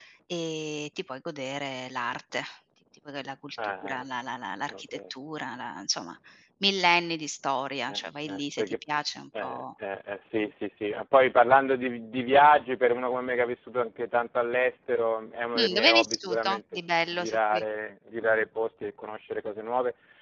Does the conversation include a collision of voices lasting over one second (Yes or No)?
Yes